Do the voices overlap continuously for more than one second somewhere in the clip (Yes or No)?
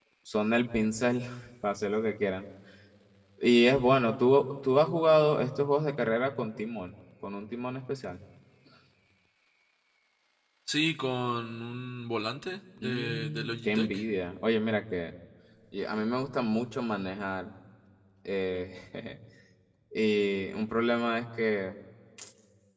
Yes